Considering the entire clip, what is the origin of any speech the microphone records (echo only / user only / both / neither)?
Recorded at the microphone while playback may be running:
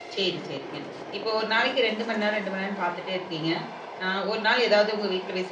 user only